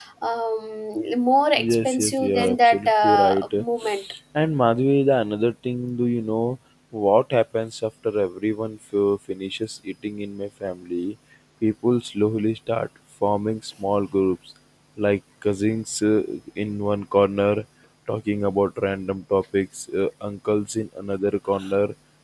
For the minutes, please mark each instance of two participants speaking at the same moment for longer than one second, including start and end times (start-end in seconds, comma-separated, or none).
1.6-3.4